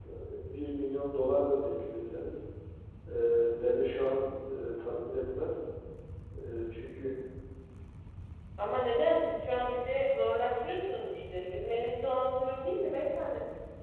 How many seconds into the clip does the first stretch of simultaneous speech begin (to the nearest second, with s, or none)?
none